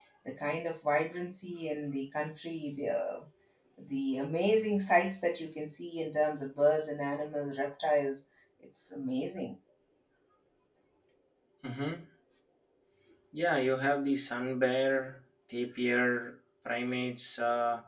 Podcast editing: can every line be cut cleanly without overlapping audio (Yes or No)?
Yes